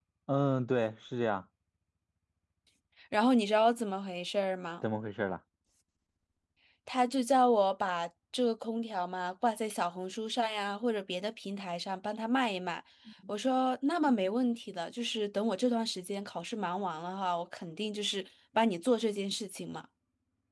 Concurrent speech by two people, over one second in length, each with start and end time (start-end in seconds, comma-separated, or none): none